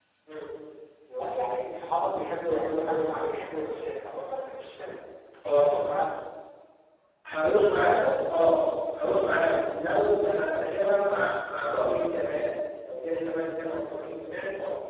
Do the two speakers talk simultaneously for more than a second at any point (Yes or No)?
No